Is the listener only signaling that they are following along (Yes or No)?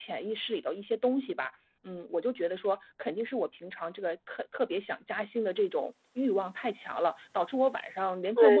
Yes